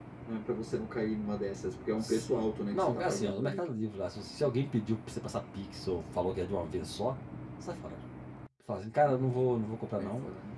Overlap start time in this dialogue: 2 s

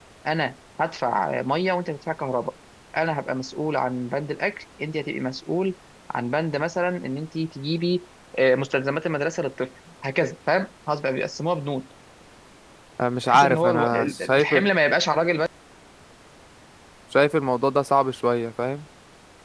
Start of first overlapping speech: 13 s

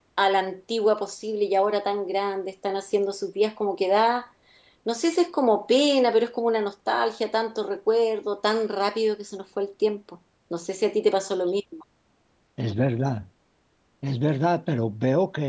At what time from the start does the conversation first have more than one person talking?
none

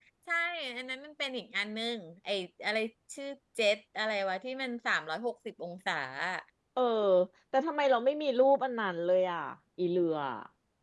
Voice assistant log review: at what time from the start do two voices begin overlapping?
none

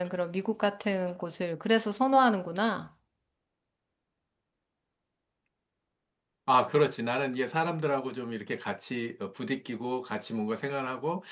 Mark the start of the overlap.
none

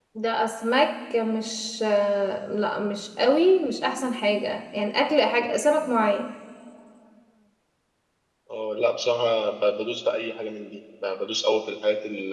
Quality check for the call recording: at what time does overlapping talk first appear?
none

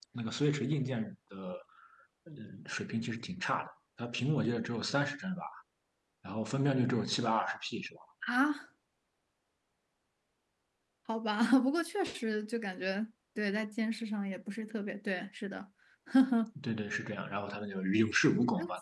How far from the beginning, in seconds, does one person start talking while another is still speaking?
none

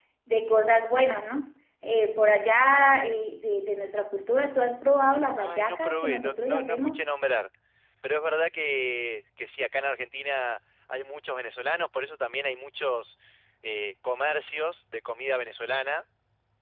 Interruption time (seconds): 5 s

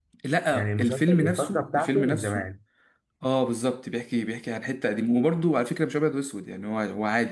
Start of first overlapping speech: 1 s

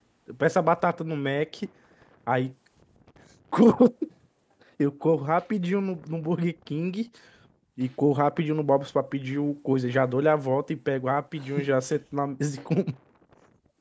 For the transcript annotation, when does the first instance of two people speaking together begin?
none

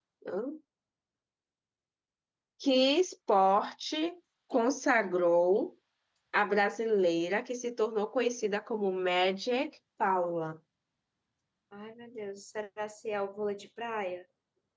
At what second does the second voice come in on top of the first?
none

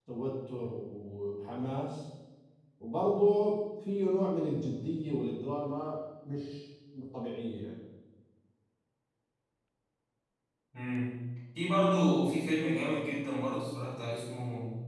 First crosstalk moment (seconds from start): none

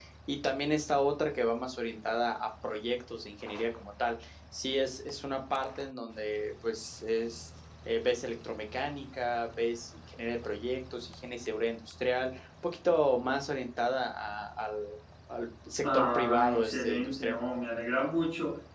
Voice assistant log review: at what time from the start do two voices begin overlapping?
16 s

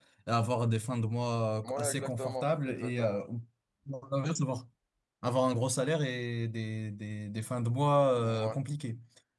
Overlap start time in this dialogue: 2 s

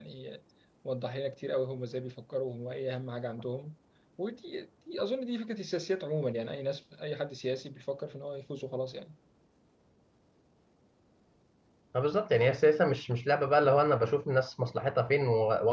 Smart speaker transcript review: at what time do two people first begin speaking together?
none

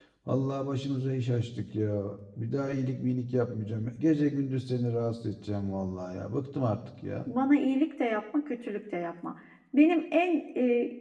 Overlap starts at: none

